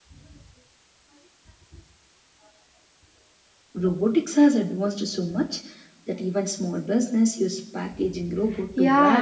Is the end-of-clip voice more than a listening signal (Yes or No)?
Yes